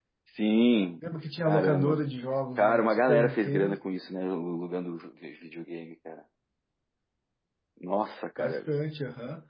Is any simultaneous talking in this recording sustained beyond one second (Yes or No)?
Yes